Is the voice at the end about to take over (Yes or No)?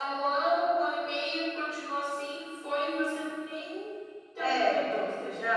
Yes